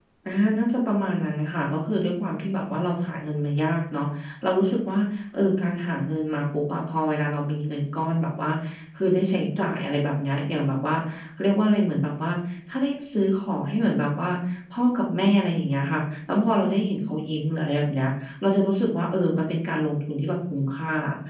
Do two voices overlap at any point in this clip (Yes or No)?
No